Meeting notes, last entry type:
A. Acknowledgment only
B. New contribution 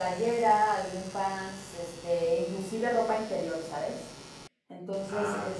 A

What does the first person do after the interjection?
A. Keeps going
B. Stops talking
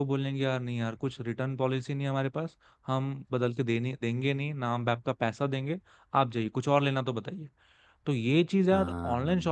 A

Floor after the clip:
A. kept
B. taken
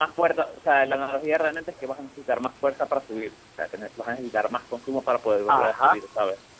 B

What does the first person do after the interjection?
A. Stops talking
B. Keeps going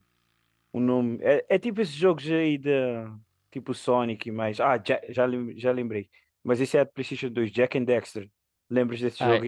A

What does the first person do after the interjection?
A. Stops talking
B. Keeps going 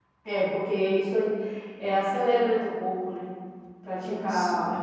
B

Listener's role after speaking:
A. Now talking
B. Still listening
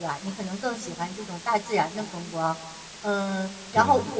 B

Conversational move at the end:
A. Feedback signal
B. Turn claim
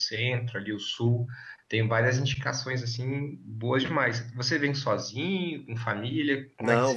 B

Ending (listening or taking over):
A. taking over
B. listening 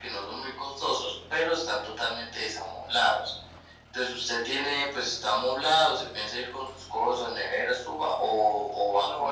A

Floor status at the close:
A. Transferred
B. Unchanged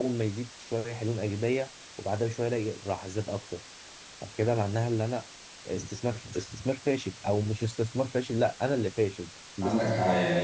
A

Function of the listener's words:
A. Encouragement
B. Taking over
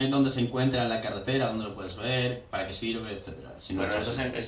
B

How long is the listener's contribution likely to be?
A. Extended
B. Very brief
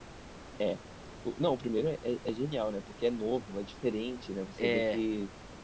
B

